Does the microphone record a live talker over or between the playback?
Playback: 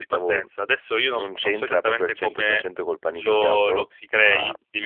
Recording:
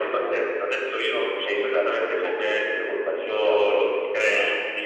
No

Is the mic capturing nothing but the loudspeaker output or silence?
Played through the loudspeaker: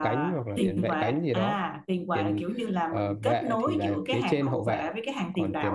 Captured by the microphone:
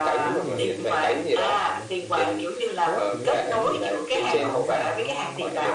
No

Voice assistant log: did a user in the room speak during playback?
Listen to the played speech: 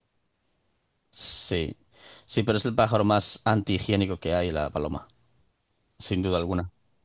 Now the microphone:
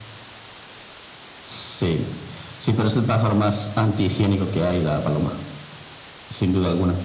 No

